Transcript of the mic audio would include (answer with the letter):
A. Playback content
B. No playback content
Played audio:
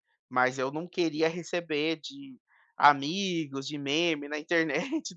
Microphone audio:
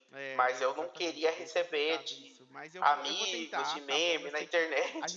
A